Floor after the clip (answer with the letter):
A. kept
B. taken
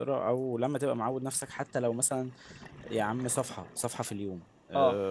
A